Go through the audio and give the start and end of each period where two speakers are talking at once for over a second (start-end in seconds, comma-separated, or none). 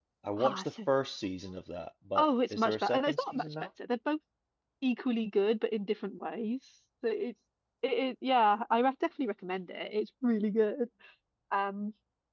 2.1-3.5